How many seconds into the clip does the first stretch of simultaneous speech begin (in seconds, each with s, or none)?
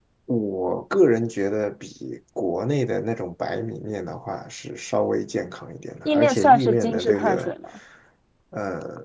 6.0 s